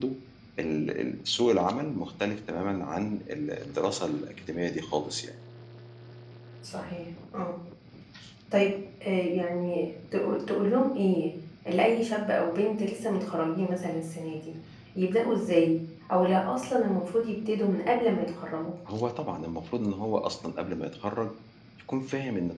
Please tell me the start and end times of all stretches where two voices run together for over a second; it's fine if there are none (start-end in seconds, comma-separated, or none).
none